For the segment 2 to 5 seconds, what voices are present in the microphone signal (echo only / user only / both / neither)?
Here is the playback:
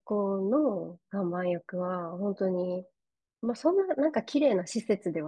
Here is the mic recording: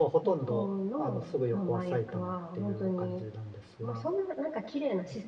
both